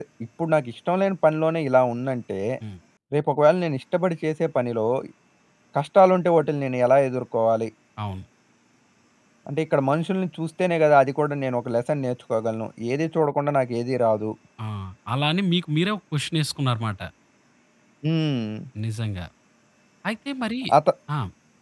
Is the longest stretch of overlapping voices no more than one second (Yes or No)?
Yes